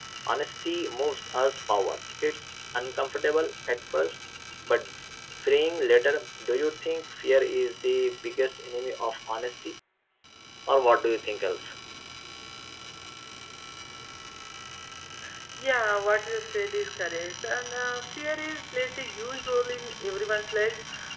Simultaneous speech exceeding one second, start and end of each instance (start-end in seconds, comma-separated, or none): none